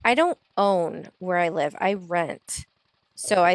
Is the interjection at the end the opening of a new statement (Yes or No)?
No